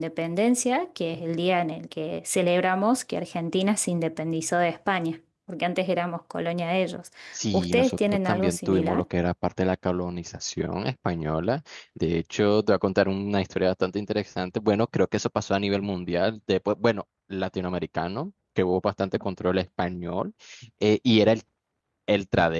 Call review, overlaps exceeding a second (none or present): present